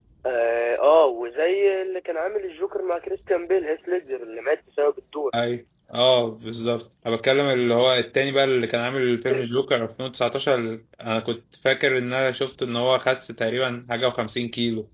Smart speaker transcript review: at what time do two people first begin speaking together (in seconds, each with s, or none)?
none